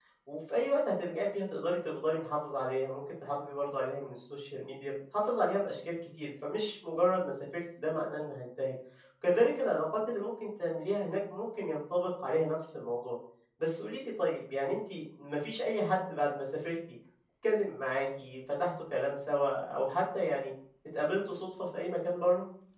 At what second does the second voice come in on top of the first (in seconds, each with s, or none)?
none